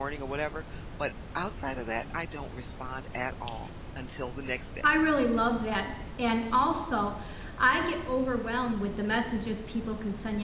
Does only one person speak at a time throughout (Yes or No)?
Yes